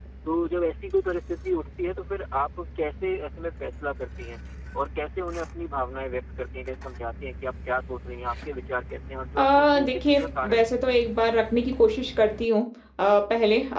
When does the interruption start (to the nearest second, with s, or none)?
9 s